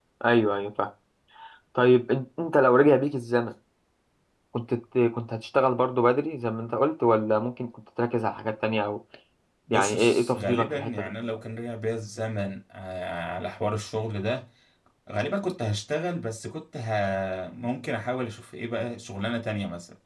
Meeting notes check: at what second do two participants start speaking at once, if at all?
10 s

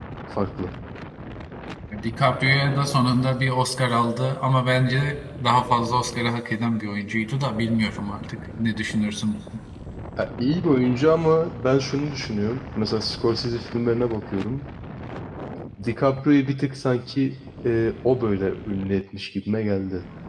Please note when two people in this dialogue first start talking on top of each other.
none

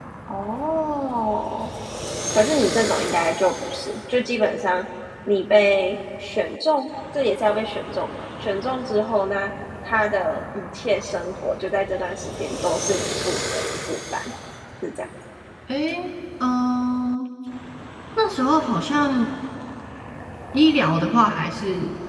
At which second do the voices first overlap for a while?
none

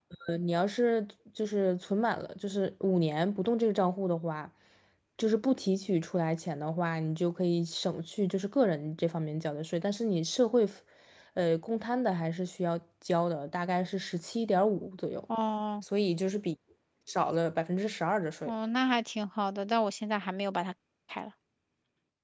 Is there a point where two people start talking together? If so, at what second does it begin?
none

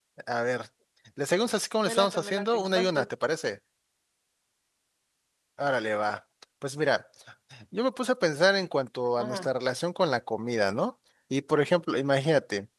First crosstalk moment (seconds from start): 2 s

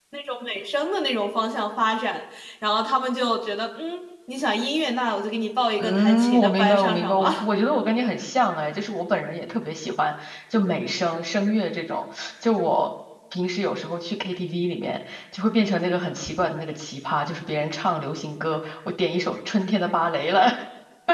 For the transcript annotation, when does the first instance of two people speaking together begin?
6 s

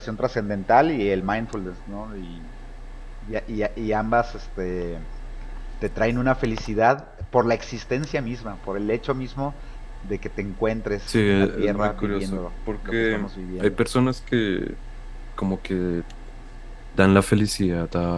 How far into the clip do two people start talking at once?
11 s

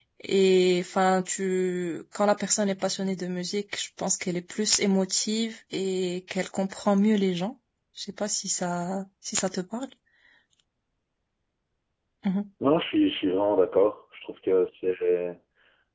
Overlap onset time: none

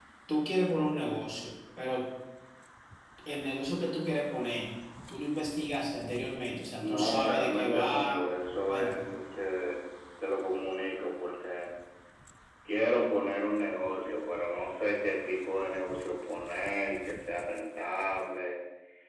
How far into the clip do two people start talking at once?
7 s

